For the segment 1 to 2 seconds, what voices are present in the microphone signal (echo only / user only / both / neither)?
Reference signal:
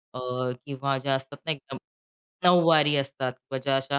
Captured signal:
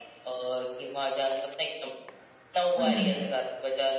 echo only